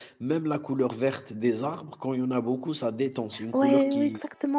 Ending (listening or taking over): taking over